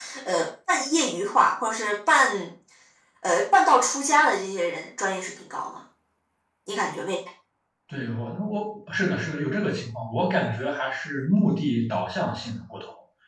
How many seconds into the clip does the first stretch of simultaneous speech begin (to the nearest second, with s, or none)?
none